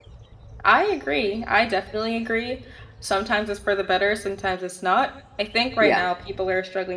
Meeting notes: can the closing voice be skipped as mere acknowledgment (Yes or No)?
Yes